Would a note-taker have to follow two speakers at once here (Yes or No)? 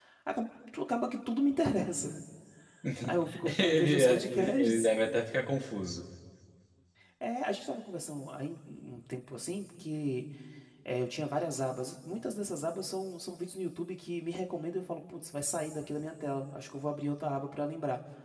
Yes